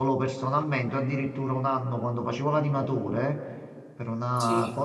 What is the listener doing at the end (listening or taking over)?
listening